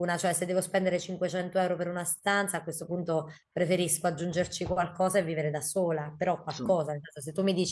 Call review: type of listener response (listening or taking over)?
listening